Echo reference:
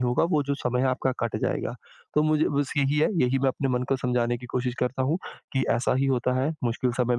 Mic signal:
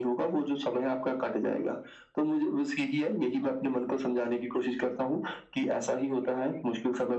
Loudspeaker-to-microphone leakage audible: Yes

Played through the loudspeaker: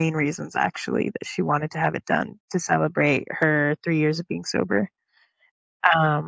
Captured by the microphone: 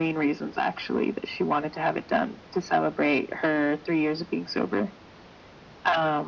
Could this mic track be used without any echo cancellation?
No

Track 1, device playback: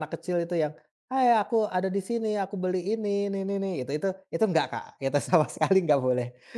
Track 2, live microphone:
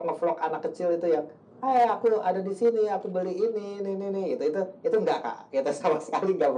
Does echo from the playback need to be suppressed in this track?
Yes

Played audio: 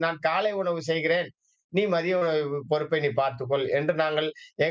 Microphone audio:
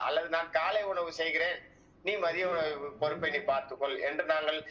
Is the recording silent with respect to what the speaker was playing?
No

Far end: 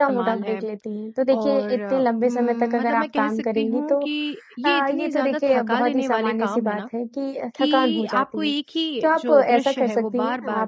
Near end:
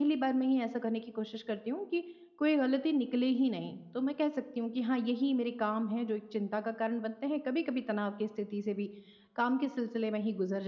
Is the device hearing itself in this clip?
No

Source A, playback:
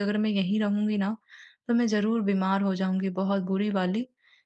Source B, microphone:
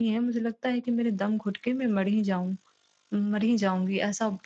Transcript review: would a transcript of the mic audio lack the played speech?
Yes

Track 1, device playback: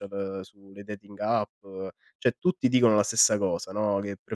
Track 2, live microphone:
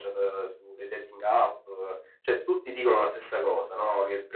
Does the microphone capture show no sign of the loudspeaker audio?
No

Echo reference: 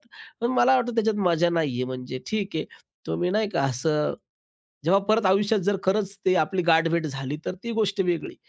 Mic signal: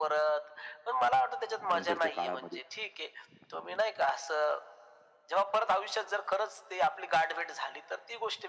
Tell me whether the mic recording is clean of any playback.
No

